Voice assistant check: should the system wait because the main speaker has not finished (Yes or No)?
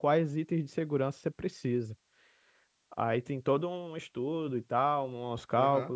No